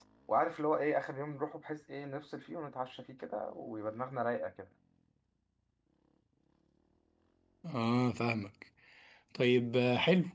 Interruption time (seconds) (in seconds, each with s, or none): none